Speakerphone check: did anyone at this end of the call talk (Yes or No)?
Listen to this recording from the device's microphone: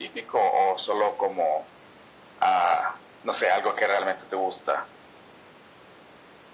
No